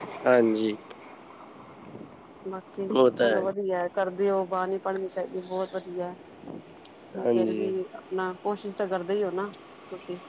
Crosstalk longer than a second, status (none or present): none